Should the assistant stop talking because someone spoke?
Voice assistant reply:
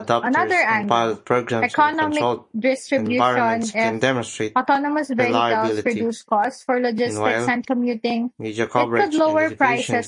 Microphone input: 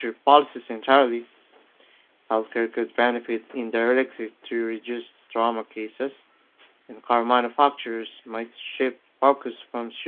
Yes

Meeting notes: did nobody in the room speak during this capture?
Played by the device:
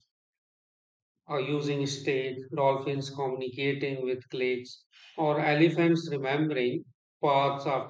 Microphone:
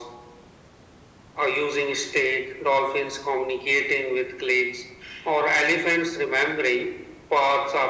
Yes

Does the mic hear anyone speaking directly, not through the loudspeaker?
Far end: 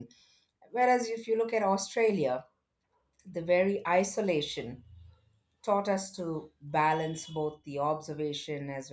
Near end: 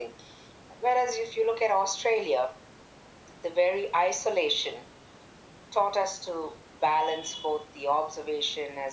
No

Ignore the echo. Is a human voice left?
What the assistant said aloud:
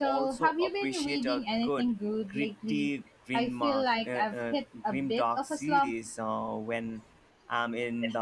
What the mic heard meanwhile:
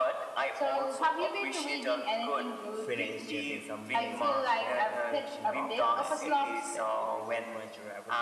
Yes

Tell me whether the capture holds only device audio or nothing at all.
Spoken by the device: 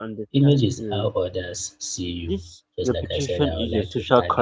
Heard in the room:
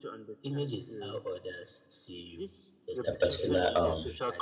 No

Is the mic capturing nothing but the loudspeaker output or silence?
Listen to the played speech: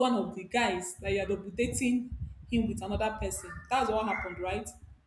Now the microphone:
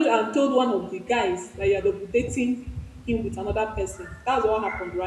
Yes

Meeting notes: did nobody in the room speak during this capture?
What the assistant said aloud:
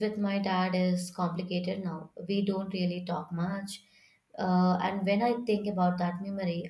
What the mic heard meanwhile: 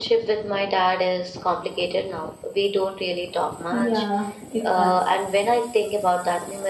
No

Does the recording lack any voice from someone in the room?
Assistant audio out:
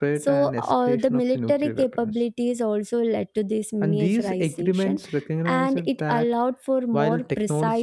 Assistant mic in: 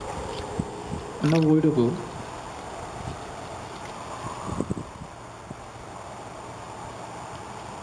No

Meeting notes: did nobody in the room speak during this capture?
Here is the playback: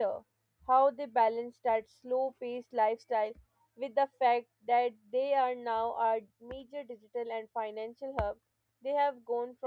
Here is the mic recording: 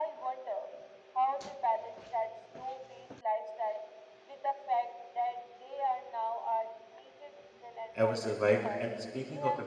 No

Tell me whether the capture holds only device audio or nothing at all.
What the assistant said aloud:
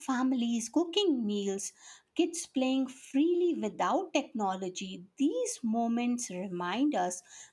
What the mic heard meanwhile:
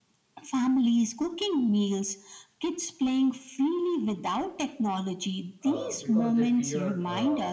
No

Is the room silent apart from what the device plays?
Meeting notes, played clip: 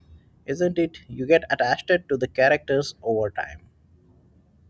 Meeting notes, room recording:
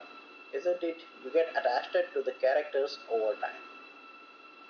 Yes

